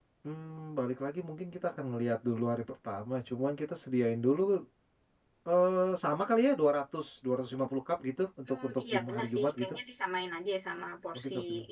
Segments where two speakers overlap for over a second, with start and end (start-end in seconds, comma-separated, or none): 8.5-9.7